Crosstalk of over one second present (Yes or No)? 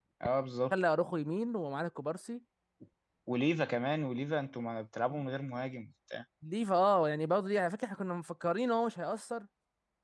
No